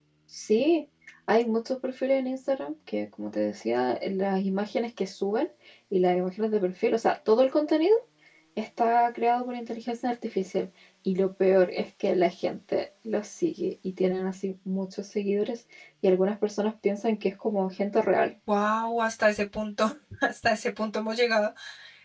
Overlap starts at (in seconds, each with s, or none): none